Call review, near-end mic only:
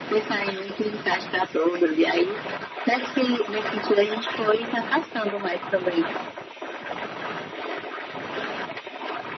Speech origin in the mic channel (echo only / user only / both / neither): echo only